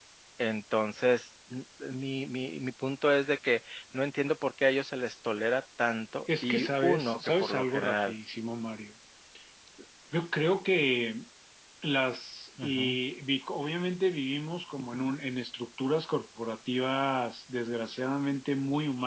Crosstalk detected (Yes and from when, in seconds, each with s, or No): Yes, from 6.4 s